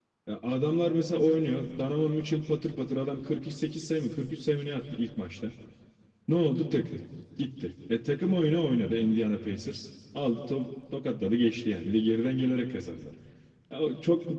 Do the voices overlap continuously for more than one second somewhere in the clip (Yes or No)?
No